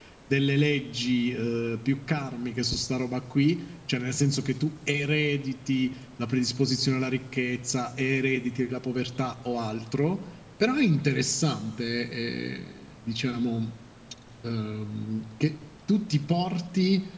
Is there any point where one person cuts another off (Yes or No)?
No